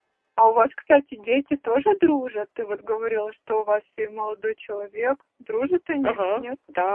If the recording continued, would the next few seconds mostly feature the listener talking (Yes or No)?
Yes